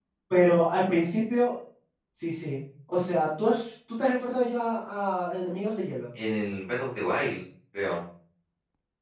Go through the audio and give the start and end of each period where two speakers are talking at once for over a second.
none

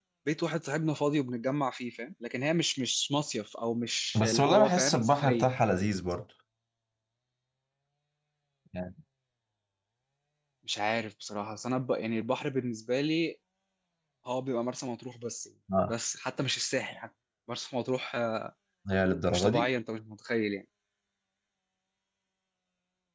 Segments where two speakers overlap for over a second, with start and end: 4.2-5.5

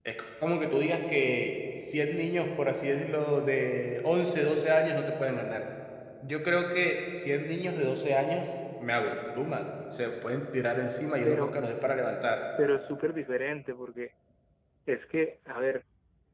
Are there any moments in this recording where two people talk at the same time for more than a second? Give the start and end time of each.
none

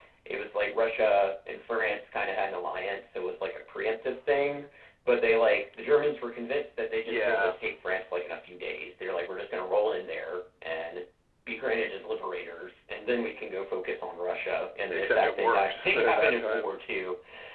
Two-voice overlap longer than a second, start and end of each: 14.9-16.7

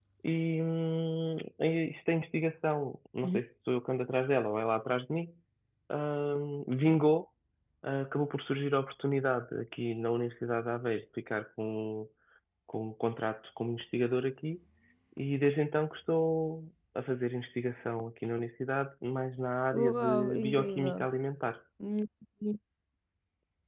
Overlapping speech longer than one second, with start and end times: 19.7-21.1

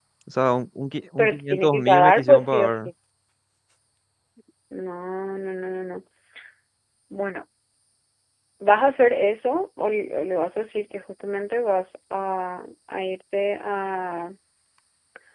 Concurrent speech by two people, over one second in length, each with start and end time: 1.2-2.9

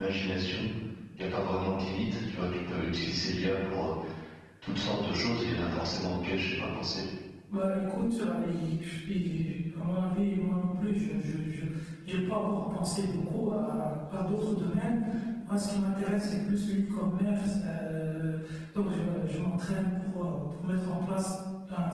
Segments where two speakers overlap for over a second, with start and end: none

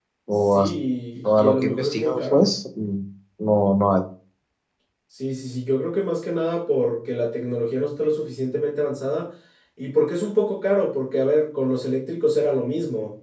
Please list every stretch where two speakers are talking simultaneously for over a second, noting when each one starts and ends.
1.2-2.5

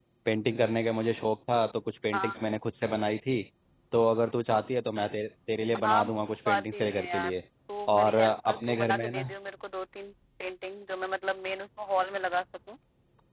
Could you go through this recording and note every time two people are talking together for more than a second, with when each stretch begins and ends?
5.8-7.4, 8.0-9.3

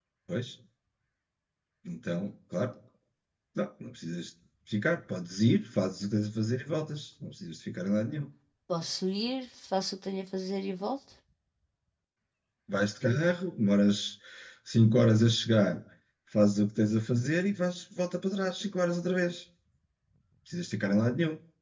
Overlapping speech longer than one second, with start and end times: none

